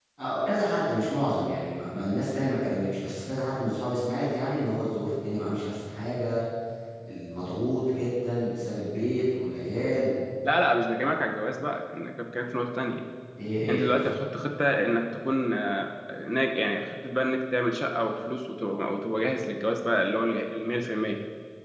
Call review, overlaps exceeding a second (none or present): none